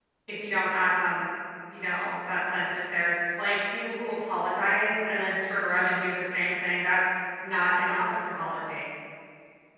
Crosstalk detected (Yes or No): No